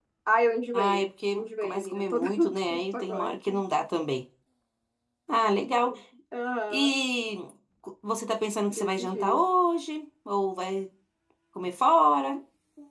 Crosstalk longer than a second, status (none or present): present